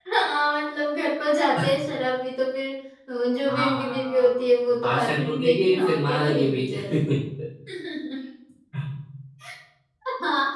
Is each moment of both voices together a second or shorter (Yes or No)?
No